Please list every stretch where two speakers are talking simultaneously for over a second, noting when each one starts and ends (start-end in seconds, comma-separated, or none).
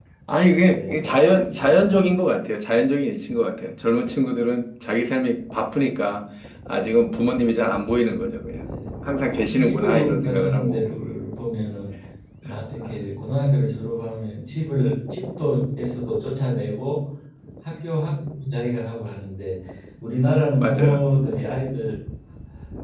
9.5-10.8